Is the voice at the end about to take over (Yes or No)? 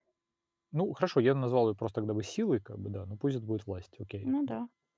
Yes